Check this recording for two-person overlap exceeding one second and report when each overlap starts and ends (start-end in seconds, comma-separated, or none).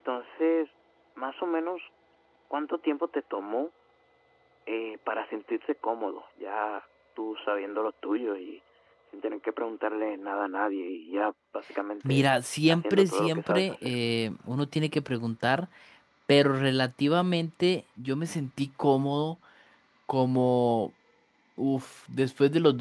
12.7-13.9